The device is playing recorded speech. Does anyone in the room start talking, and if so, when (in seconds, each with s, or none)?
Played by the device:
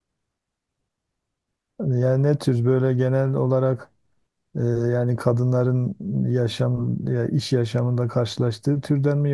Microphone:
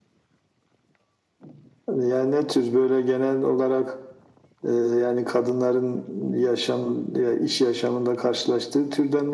none